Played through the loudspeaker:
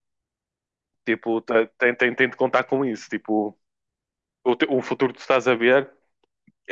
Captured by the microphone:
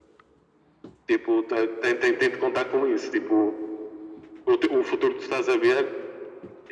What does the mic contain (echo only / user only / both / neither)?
echo only